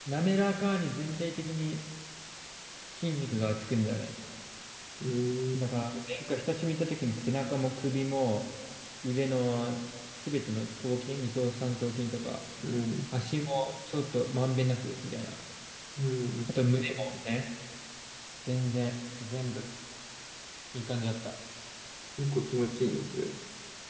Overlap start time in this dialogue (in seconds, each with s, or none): none